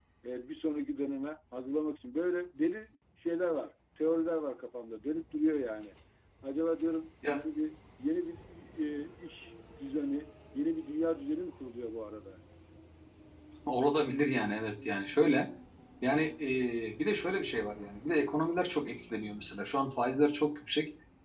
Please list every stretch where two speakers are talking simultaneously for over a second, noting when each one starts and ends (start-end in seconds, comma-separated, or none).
none